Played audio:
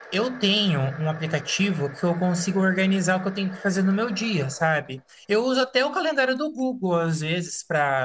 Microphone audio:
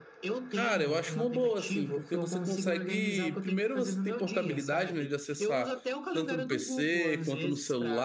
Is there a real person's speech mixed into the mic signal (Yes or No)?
Yes